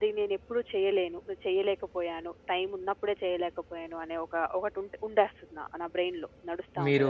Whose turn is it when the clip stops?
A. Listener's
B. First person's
A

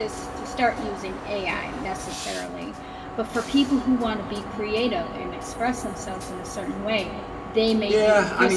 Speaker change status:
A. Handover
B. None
A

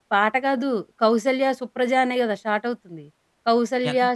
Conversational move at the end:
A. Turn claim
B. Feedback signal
B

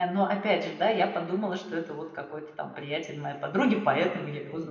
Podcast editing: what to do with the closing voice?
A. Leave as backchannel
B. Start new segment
B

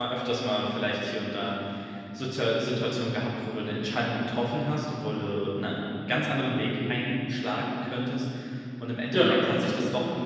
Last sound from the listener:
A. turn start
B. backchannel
B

